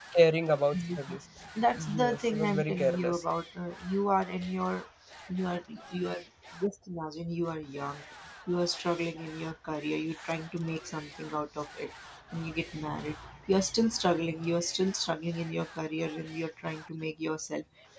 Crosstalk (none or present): present